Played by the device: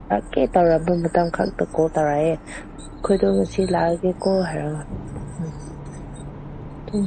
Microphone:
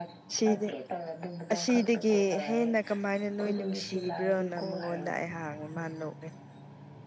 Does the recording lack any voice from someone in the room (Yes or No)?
No